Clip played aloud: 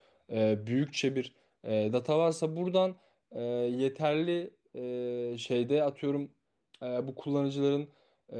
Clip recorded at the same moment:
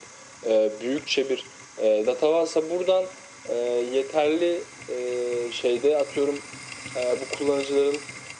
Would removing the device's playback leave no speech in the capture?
Yes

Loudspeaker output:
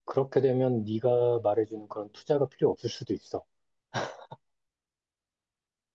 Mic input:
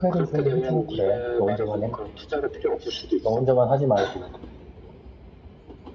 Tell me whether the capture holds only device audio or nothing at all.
No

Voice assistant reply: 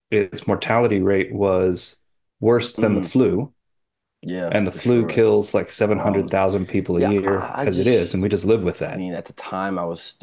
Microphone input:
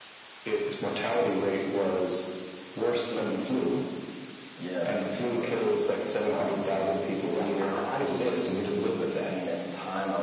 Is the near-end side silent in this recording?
Yes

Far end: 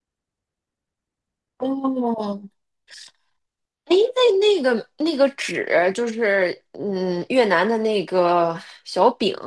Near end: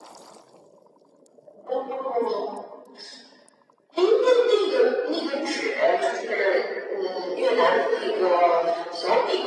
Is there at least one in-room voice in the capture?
No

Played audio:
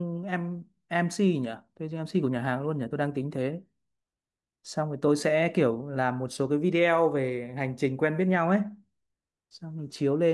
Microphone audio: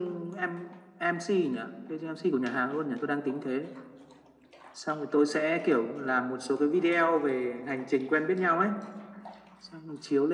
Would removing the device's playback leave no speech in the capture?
Yes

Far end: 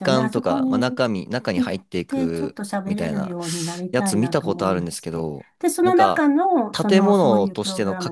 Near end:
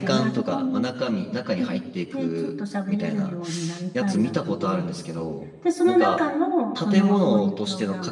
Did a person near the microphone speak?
No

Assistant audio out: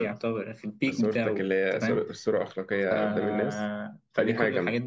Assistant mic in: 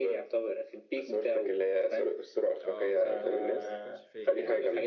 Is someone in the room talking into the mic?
Yes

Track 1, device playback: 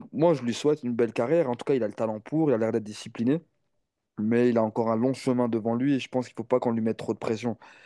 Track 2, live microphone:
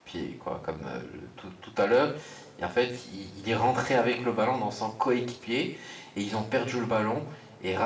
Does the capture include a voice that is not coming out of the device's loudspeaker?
Yes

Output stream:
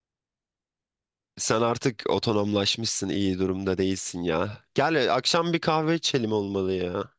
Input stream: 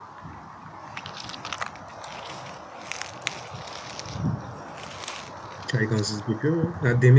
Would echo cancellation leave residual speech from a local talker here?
Yes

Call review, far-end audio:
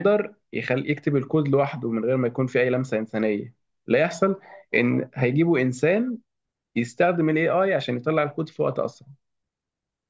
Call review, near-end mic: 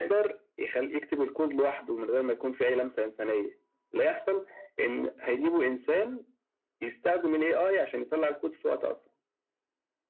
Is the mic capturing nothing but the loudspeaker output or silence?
Yes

